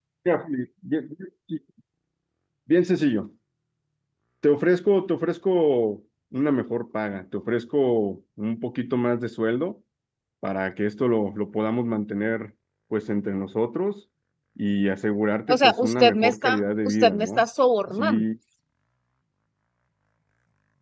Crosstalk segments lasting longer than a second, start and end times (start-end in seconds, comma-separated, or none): 15.5-17.4